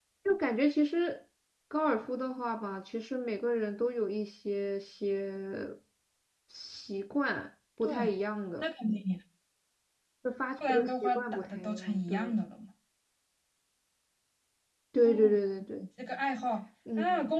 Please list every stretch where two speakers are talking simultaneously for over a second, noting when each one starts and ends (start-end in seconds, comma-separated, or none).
10.7-12.3